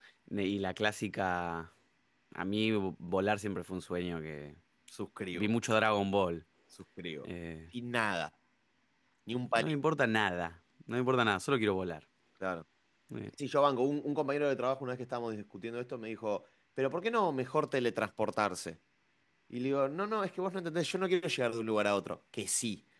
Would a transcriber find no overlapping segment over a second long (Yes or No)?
Yes